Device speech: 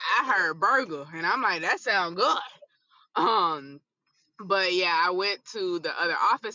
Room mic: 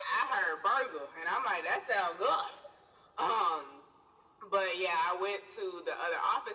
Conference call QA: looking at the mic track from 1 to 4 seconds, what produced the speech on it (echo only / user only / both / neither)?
echo only